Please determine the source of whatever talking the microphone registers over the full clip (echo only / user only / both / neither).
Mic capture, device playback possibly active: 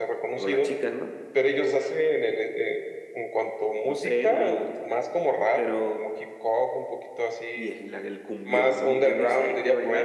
echo only